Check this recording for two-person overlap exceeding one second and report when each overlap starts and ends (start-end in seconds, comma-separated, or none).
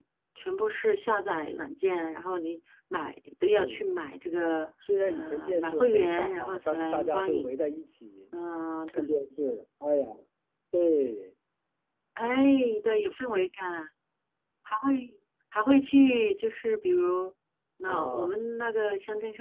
5.1-7.5